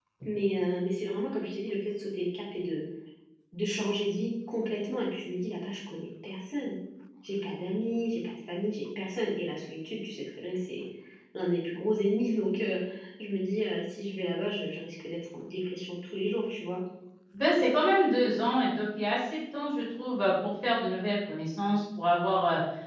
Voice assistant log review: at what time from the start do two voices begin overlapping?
none

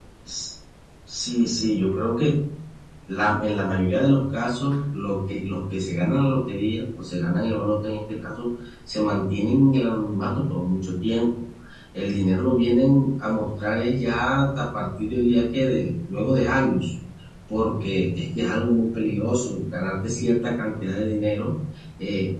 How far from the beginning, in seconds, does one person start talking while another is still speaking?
none

